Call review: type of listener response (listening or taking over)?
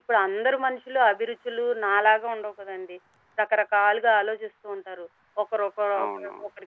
listening